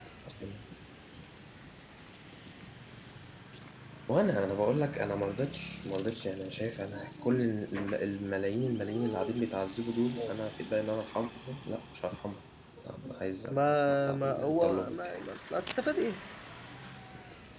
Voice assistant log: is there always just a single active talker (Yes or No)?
No